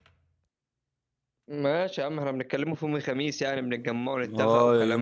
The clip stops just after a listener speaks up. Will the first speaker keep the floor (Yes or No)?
No